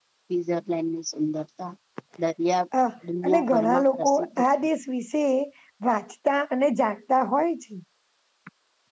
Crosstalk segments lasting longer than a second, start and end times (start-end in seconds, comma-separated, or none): 3.2-4.5